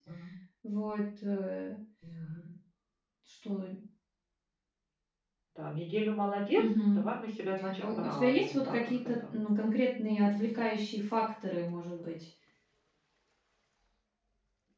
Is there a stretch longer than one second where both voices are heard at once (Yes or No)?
Yes